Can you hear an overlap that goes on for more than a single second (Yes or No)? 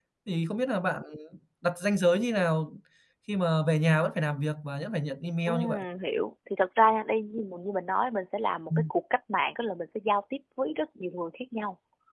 No